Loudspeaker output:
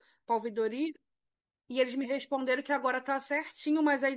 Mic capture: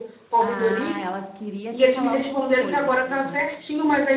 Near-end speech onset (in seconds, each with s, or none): 0.4 s